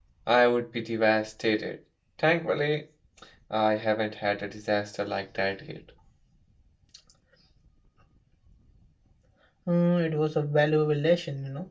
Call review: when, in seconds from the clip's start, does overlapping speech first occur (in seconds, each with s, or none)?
none